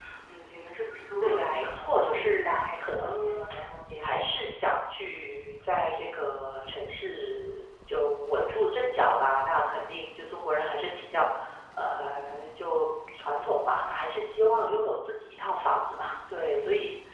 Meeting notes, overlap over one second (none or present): present